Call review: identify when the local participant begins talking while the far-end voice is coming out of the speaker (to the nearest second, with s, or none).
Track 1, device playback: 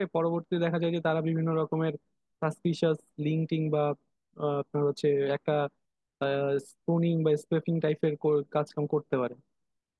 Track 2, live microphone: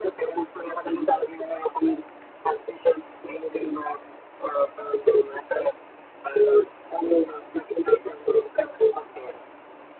none